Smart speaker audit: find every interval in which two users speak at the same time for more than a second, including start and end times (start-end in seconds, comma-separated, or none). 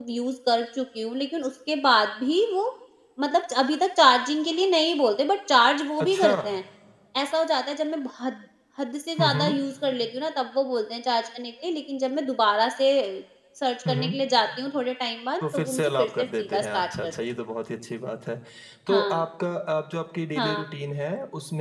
15.5-17.1